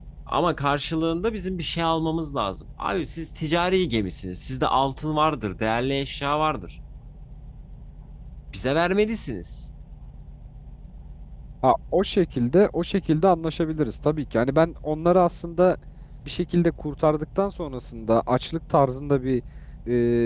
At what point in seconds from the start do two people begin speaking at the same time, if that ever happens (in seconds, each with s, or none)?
none